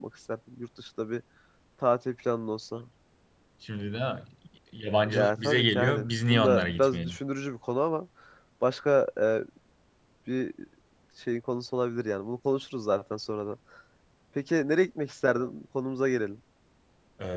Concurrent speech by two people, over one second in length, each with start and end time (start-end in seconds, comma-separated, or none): 5.1-7.2